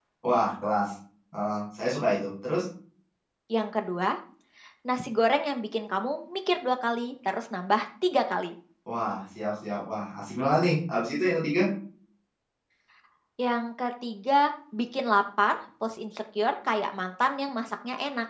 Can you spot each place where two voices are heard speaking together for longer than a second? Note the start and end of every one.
none

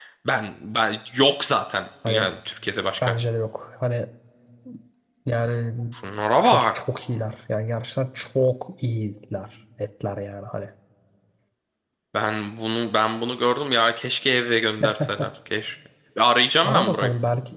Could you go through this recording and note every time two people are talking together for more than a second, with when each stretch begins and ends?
none

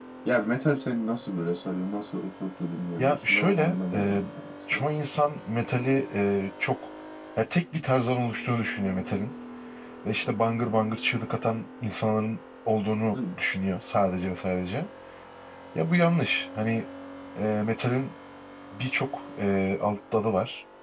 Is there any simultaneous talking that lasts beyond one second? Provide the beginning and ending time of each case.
3.0-4.2

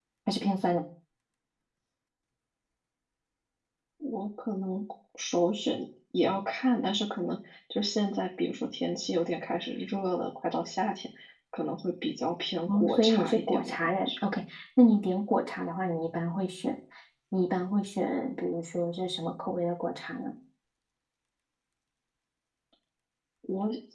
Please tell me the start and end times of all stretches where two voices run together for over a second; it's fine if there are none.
12.7-14.2

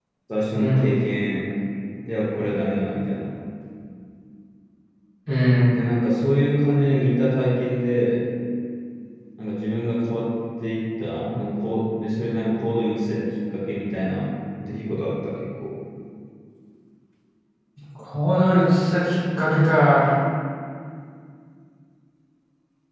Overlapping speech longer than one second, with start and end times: none

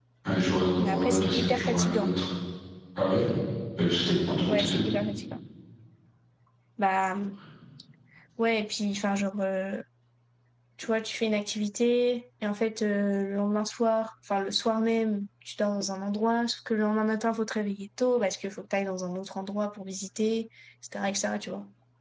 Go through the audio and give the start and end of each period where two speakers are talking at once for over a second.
0.8-2.1

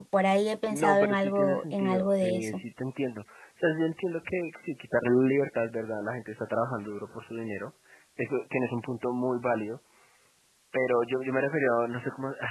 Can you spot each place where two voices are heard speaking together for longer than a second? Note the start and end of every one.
0.7-2.6

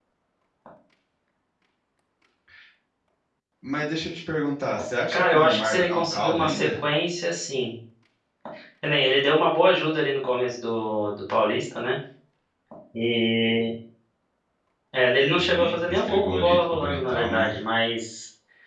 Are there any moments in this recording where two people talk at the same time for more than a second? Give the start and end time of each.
5.1-6.8, 15.3-17.5

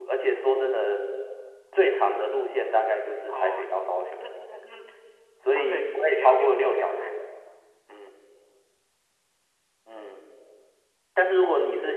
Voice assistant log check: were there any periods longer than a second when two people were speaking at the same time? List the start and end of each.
5.6-7.2

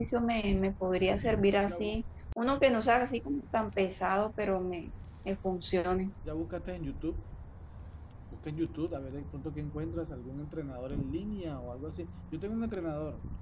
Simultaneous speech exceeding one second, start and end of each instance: none

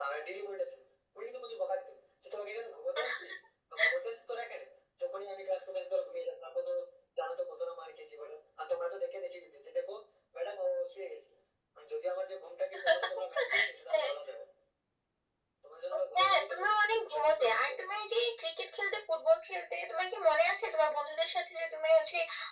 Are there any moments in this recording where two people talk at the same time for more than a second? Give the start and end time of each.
16.1-17.7

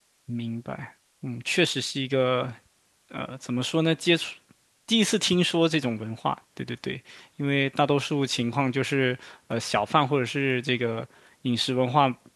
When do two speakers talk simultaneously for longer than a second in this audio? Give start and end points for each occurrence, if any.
none

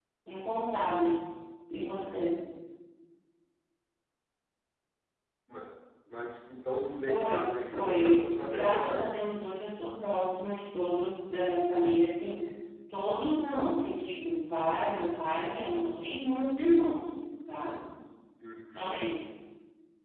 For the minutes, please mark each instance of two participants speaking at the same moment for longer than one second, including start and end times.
7.1-9.2

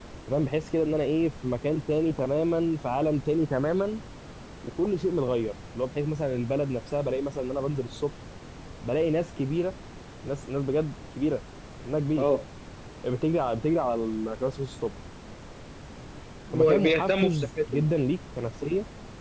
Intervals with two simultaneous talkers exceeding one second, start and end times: 16.5-17.9

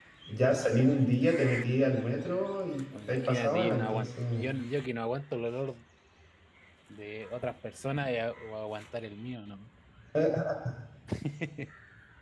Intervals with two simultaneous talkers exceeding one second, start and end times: 3.1-4.5

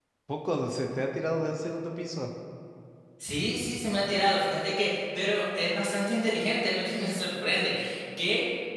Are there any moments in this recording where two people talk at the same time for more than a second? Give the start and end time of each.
none

